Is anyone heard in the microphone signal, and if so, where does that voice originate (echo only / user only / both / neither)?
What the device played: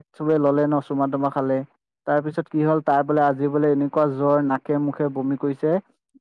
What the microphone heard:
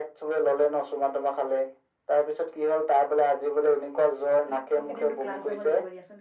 both